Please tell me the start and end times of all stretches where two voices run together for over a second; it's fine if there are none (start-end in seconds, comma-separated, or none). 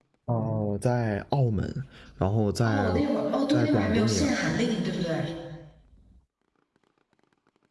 3.5-4.7